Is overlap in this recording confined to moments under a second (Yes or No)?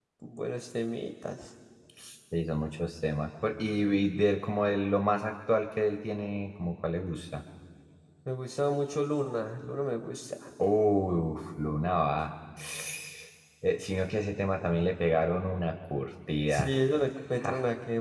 Yes